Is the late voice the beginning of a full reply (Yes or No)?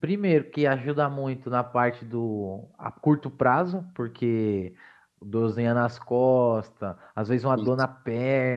No